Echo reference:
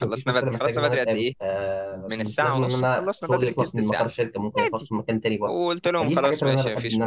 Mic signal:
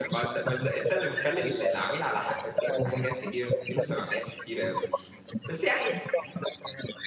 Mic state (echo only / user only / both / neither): both